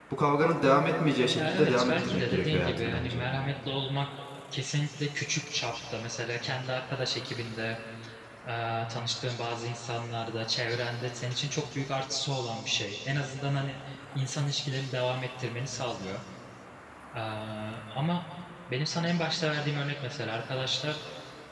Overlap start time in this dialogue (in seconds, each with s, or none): 1.4 s